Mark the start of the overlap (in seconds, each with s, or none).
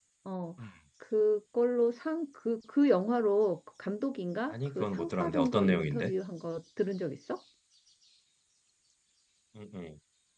4.5 s